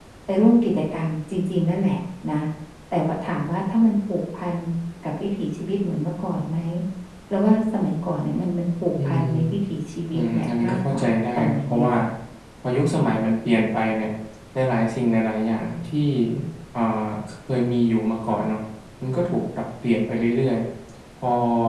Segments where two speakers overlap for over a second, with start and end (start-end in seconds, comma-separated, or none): 10.1-11.9